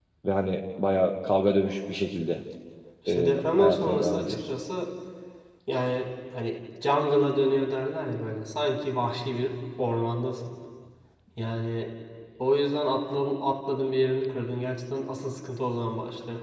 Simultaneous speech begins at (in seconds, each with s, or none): 3.1 s